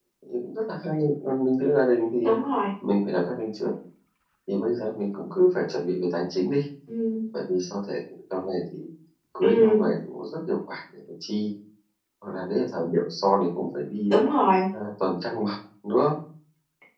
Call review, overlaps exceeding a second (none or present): none